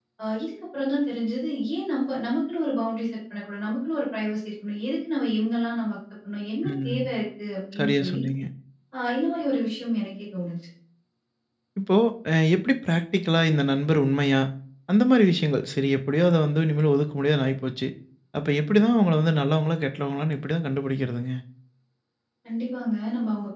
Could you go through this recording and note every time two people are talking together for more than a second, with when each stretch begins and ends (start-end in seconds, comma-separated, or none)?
none